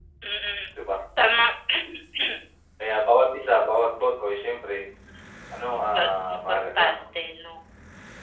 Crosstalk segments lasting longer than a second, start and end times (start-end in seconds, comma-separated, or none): 5.8-7.0